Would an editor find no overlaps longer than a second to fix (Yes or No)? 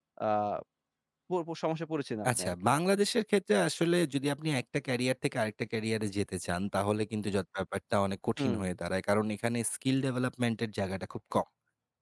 Yes